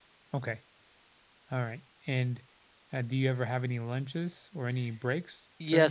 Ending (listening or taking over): taking over